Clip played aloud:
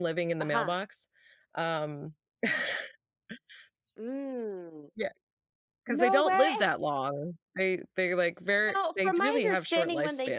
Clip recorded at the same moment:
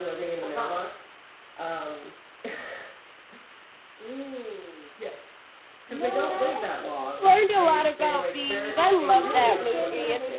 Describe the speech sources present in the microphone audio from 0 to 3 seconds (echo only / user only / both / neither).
echo only